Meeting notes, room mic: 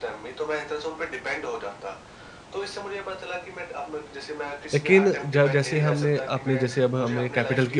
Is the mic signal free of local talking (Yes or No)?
No